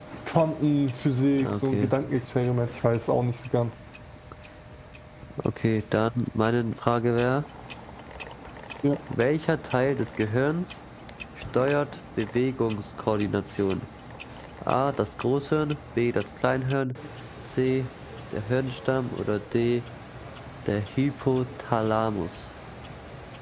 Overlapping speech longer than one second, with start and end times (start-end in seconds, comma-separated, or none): none